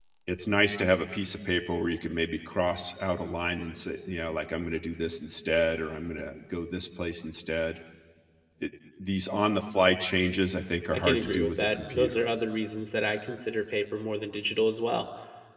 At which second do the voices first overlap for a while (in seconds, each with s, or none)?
10.9 s